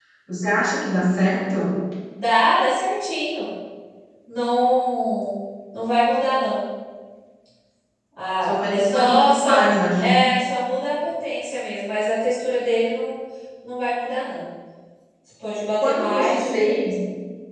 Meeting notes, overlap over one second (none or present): present